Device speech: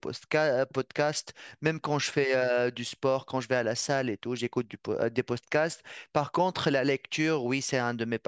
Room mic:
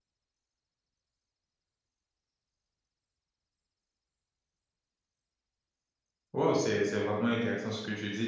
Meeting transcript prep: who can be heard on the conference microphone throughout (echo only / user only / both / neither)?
user only